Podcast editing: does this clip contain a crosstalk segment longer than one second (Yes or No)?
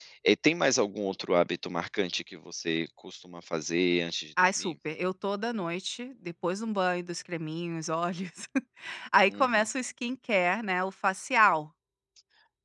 No